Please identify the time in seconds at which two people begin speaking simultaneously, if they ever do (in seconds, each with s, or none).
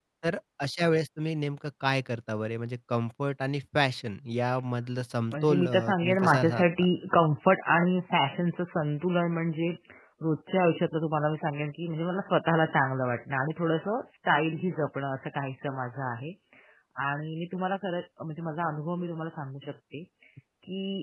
5.3 s